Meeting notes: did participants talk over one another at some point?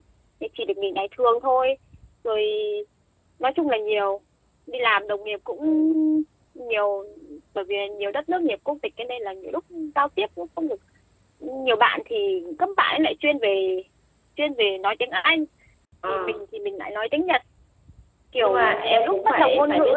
Yes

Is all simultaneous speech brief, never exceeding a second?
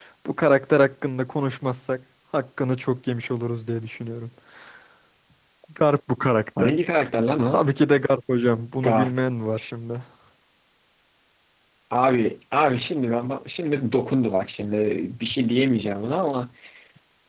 Yes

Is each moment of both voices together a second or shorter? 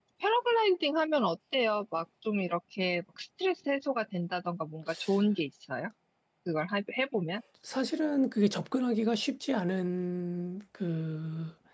Yes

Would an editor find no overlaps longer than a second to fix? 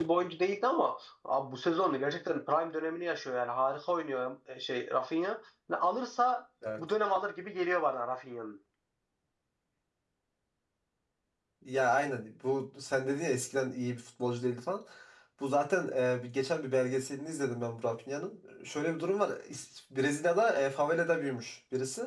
Yes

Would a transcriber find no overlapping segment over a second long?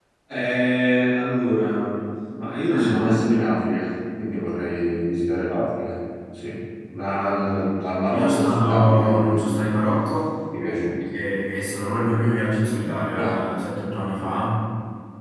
No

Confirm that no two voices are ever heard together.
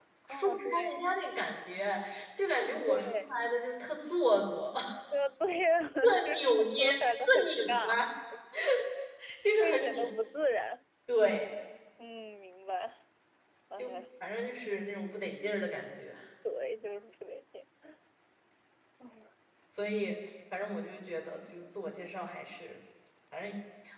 No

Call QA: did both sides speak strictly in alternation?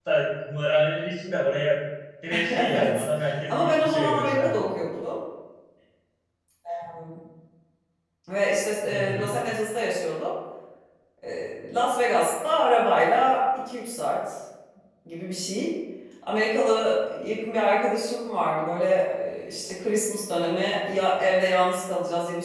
No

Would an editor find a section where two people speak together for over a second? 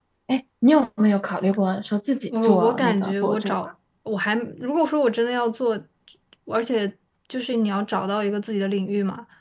Yes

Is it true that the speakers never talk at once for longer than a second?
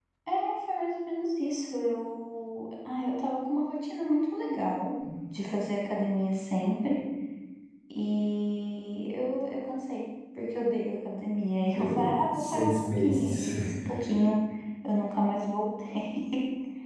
No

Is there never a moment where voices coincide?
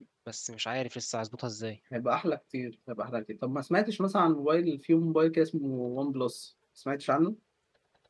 Yes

